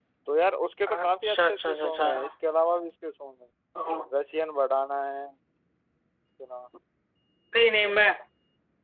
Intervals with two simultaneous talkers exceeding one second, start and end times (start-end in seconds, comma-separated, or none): 0.9-2.3